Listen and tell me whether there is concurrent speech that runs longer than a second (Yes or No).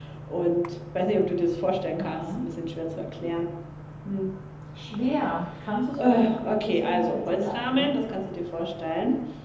Yes